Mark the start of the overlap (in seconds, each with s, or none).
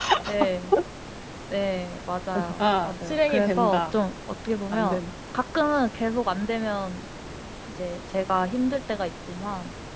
2.6 s